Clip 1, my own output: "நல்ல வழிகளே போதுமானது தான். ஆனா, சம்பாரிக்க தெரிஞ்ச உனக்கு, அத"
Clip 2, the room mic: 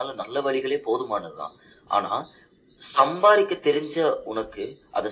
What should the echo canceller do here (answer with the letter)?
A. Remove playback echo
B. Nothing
A